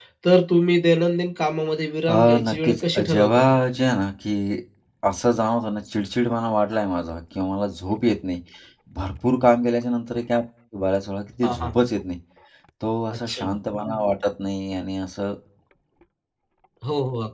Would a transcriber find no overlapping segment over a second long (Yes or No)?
No